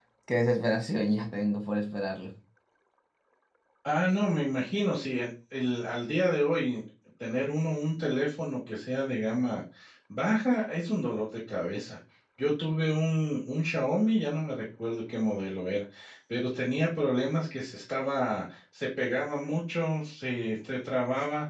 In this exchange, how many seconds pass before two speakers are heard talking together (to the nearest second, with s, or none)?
none